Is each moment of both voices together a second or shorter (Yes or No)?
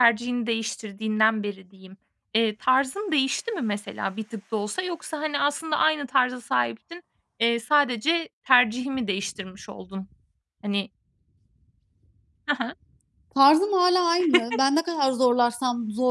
Yes